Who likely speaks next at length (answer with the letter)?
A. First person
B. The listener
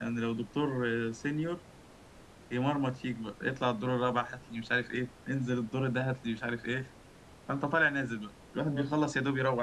A